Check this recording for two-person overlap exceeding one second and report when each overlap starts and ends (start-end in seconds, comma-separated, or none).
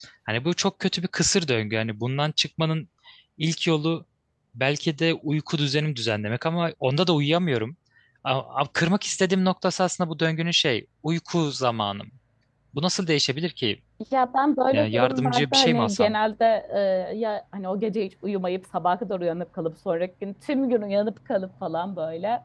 14.7-16.1